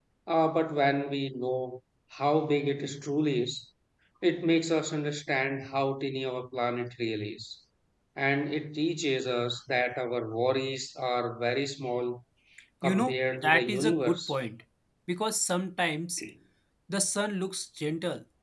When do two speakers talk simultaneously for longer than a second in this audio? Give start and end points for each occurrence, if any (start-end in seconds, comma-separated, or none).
12.8-14.4